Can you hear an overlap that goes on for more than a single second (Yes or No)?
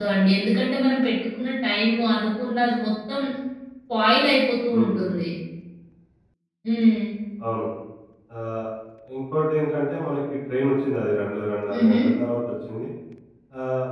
No